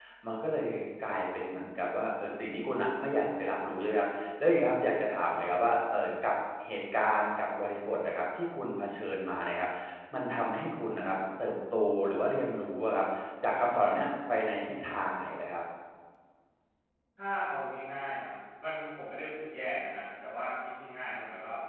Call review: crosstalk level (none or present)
none